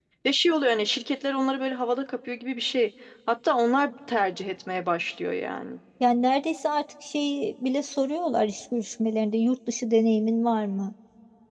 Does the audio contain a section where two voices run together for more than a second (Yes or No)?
No